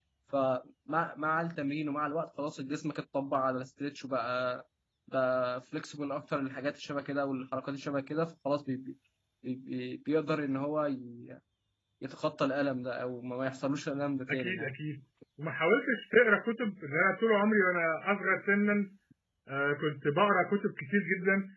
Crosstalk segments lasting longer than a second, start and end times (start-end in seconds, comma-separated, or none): none